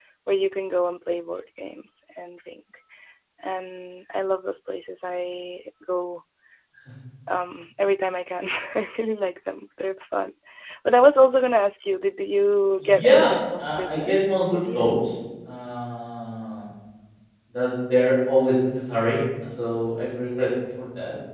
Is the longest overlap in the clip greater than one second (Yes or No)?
Yes